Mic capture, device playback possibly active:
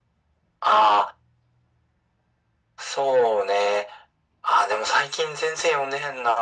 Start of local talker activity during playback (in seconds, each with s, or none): none